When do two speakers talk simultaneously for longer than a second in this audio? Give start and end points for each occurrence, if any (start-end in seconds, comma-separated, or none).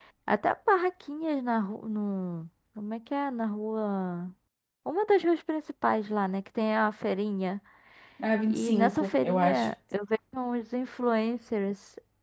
8.5-9.7